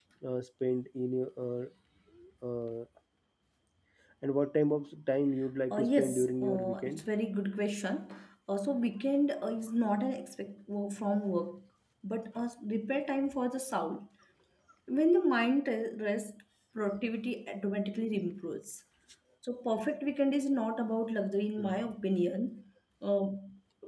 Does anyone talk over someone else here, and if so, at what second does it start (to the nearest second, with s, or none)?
6 s